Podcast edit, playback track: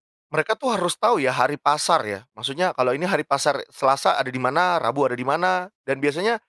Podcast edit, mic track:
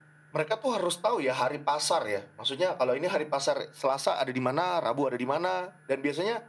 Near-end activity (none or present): none